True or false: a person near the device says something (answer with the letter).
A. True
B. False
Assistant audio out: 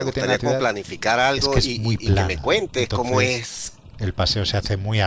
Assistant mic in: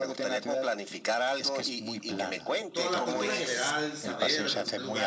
A